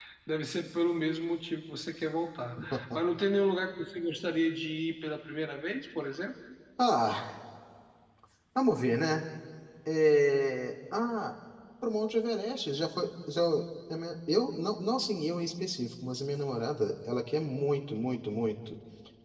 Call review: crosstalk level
none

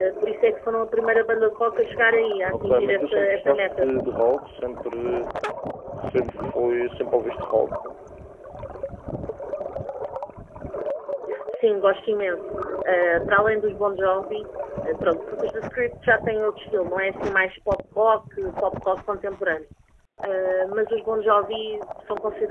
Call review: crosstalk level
present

